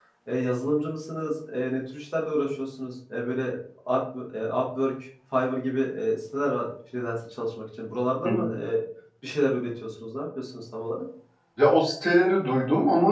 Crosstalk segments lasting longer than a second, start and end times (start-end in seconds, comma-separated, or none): none